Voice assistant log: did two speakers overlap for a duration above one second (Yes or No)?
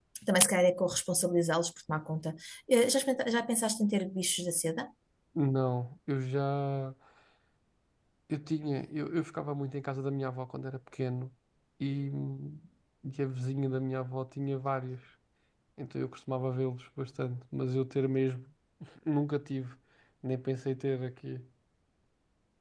No